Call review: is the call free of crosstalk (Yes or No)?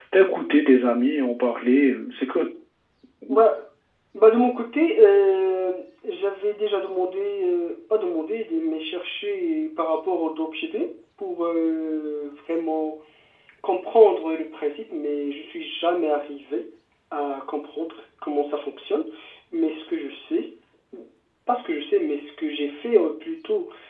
Yes